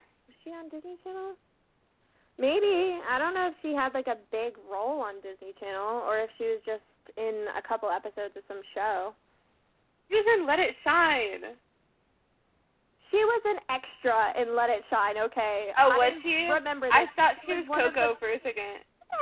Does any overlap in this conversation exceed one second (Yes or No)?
Yes